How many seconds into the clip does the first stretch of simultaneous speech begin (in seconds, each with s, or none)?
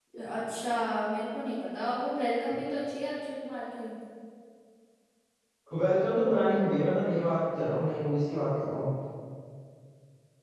none